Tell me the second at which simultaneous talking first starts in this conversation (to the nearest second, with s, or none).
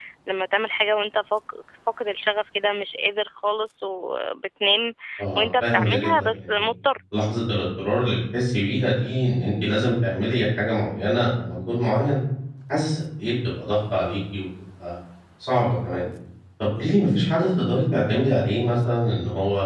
5 s